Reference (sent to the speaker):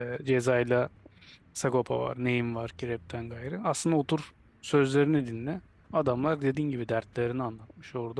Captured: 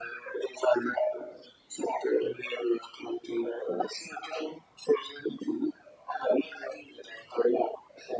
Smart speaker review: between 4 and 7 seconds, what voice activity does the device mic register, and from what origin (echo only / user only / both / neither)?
echo only